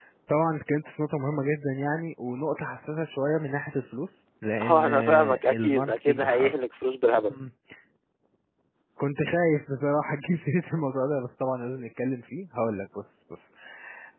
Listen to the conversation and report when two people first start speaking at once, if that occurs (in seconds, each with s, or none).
4.6 s